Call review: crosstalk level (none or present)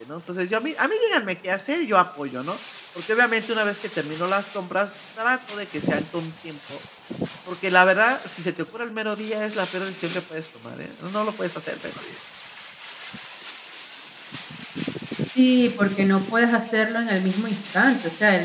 none